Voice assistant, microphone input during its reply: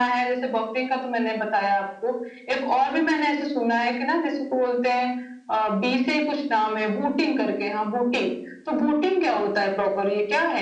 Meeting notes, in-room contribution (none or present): none